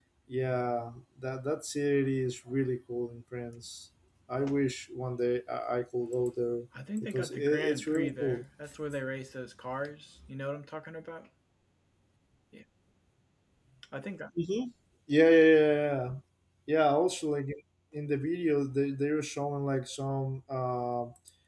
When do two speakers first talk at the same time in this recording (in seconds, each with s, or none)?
6.7 s